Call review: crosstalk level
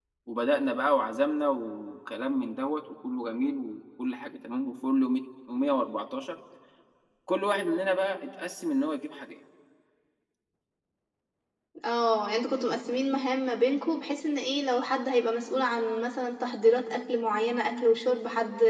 none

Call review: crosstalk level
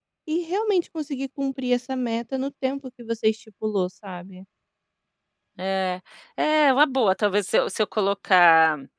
none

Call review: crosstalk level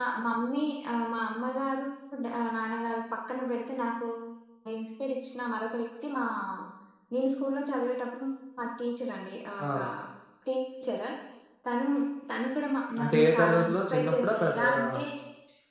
present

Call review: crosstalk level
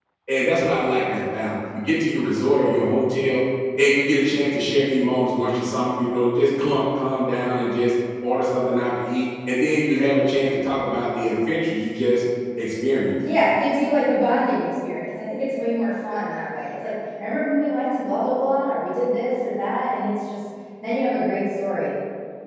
none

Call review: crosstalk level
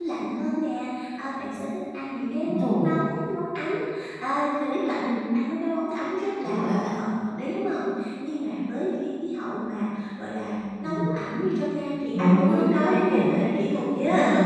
present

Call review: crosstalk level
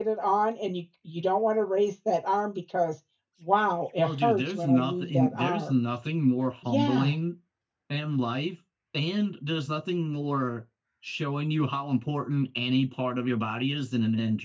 present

